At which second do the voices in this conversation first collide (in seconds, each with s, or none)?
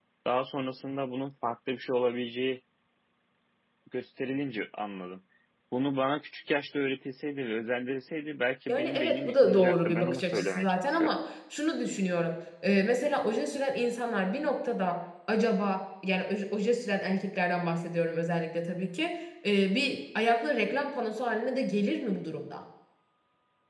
8.7 s